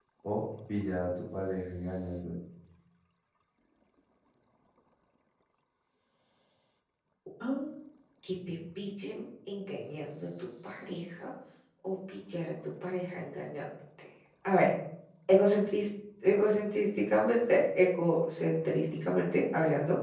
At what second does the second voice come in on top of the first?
none

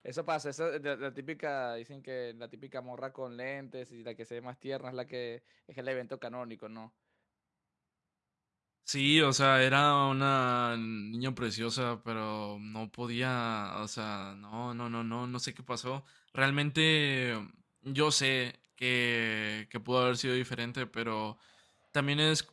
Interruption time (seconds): none

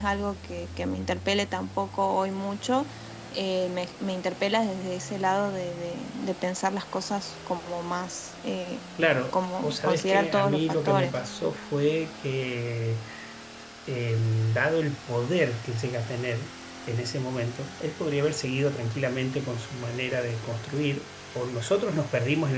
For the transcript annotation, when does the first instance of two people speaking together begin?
9 s

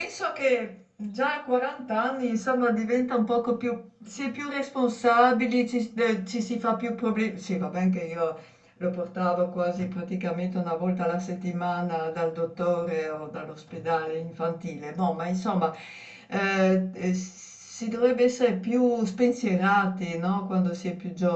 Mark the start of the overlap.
none

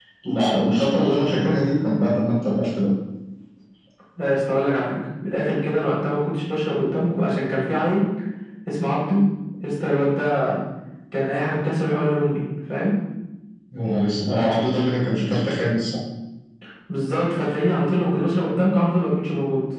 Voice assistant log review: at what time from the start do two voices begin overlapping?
none

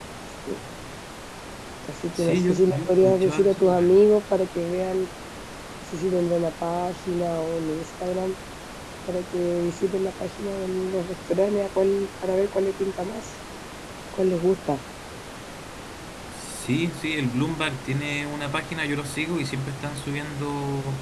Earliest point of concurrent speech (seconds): 2 s

